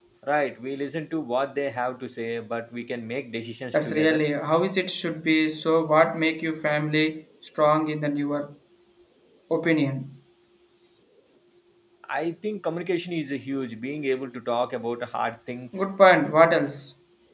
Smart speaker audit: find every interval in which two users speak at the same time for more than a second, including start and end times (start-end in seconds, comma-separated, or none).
none